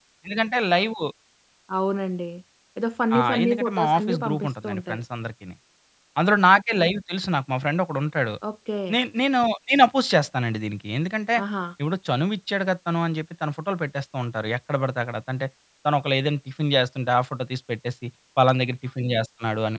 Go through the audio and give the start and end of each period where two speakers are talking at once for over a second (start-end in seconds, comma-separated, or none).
3.2-5.0